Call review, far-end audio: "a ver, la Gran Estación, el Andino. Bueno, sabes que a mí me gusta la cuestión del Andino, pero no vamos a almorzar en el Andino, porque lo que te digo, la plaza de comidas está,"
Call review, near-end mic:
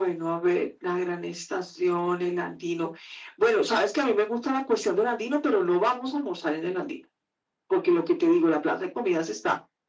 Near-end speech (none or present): none